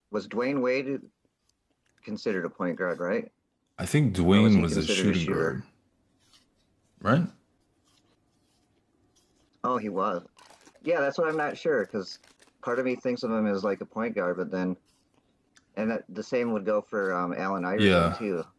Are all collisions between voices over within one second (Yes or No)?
No